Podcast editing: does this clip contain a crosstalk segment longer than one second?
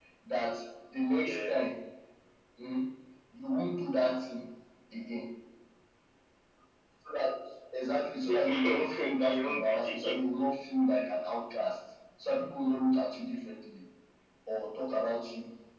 Yes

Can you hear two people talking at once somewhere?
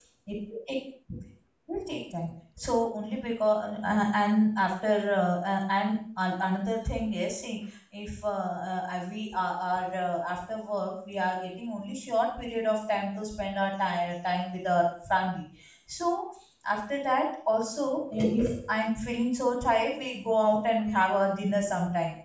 No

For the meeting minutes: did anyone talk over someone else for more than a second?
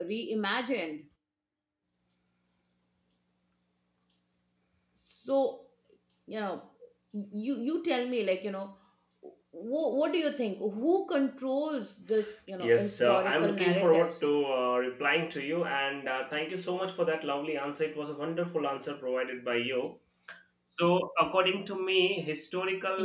Yes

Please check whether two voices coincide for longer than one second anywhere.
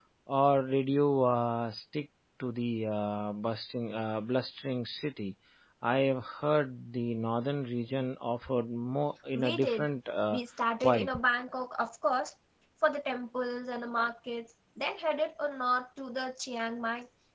No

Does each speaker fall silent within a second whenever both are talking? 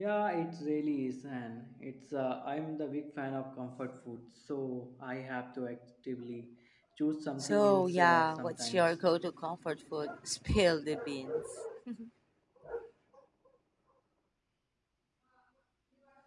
No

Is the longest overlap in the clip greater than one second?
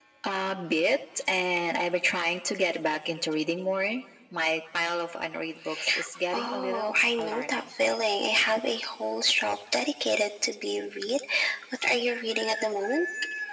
Yes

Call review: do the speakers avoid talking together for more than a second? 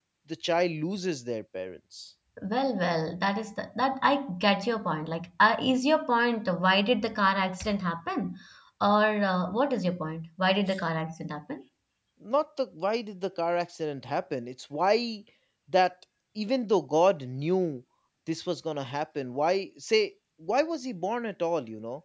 Yes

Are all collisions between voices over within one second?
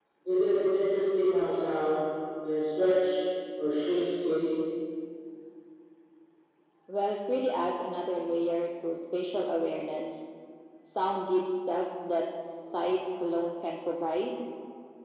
Yes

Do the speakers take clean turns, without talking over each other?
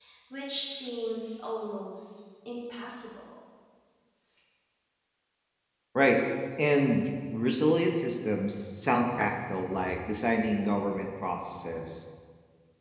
Yes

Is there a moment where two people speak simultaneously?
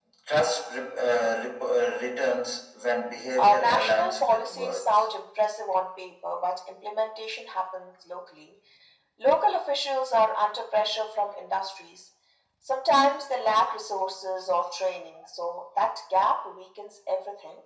Yes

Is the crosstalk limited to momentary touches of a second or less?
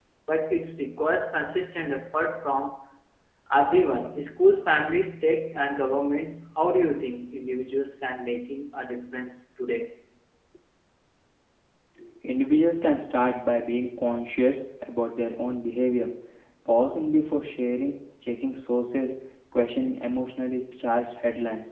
Yes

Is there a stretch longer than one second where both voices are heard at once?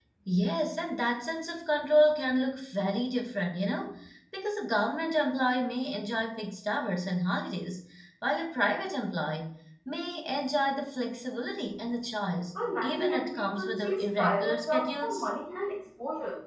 Yes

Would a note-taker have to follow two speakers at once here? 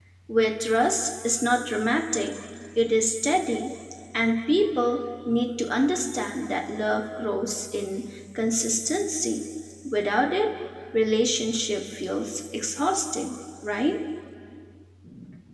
No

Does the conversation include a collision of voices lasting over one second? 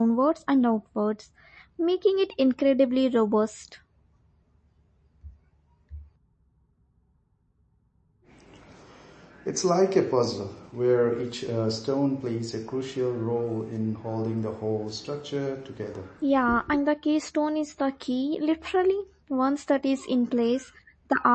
No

